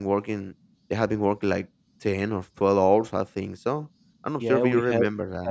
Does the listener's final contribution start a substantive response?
Yes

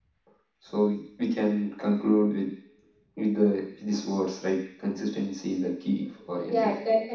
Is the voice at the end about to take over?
Yes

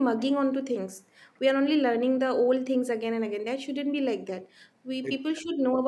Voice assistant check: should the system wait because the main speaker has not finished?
Yes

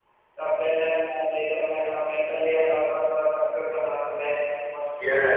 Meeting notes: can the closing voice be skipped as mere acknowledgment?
No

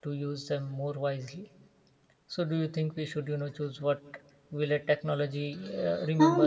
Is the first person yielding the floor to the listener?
Yes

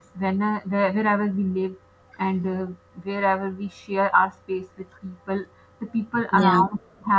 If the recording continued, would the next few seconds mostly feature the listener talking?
No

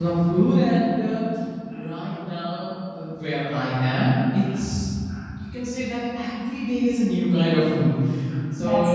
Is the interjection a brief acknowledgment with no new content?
Yes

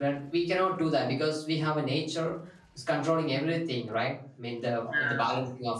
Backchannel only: Yes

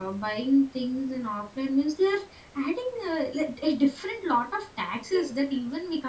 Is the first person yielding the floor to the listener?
No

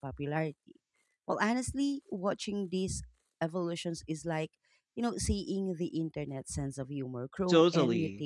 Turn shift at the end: Yes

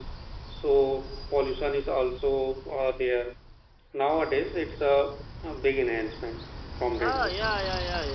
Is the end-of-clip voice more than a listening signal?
Yes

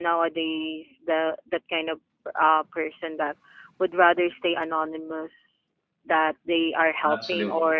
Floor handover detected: No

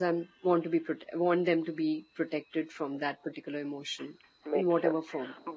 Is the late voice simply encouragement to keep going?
No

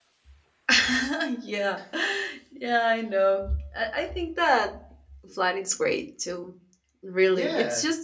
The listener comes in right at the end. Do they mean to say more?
No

